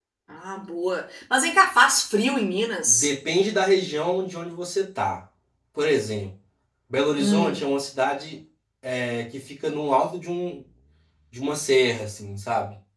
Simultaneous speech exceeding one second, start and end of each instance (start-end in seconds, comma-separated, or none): none